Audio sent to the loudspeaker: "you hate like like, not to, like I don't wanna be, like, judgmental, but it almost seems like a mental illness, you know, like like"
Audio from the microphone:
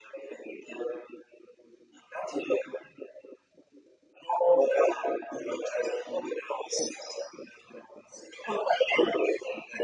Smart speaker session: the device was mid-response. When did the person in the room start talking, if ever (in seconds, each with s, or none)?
none